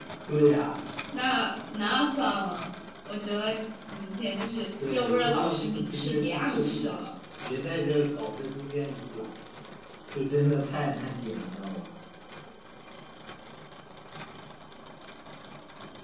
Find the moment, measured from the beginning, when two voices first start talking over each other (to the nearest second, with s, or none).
5 s